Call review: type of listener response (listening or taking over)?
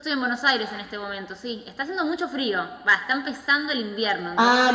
taking over